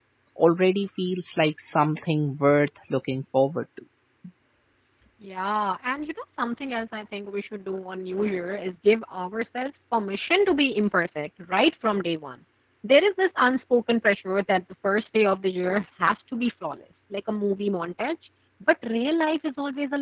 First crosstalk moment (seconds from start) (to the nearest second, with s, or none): none